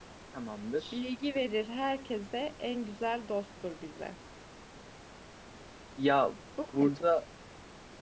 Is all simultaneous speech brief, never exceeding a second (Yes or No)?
Yes